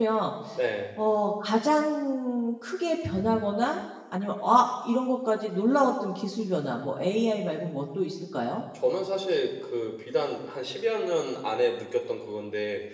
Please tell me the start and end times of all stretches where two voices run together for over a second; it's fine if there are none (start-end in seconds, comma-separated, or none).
none